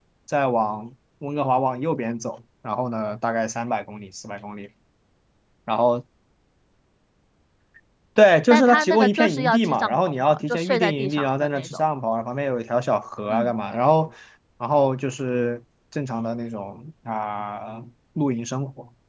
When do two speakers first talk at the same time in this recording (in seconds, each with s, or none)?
8.5 s